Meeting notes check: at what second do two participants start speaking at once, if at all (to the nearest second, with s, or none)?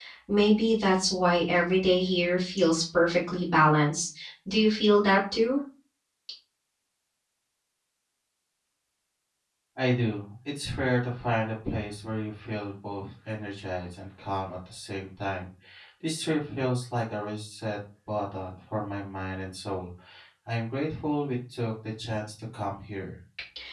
none